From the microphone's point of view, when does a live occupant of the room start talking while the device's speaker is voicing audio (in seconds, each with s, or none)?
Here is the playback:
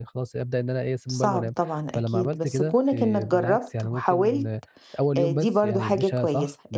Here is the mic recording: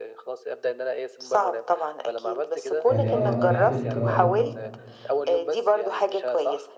2.9 s